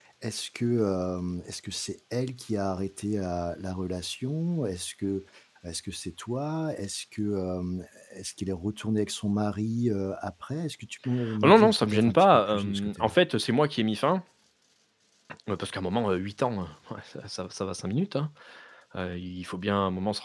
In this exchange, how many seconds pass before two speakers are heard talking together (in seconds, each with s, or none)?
11.2 s